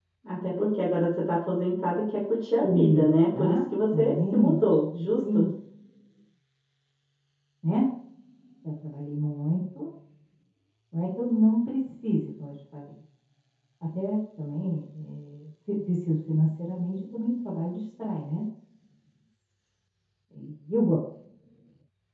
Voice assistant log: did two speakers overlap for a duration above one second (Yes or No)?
Yes